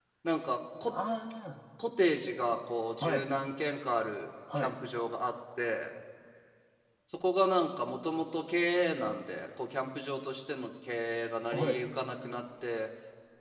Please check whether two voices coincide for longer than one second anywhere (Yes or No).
No